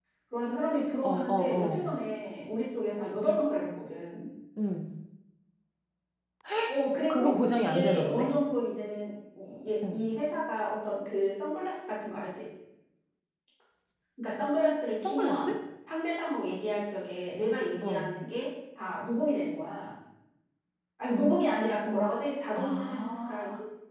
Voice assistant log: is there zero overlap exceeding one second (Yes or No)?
No